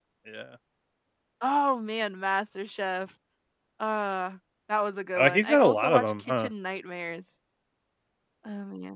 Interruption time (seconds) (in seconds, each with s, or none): 5.2 s